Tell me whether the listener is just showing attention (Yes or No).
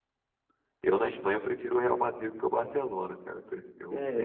No